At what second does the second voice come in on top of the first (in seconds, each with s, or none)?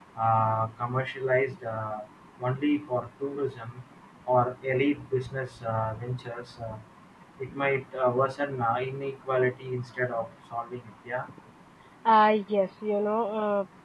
none